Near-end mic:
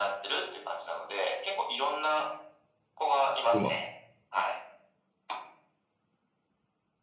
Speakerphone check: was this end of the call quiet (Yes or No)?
No